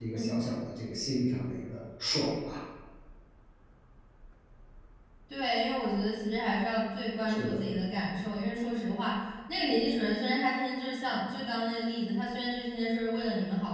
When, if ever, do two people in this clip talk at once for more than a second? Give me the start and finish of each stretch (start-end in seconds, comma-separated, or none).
none